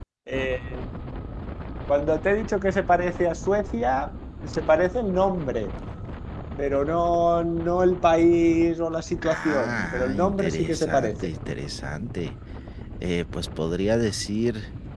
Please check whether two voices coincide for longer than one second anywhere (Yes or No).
Yes